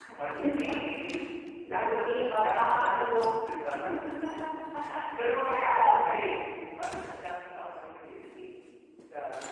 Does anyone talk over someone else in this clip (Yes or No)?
Yes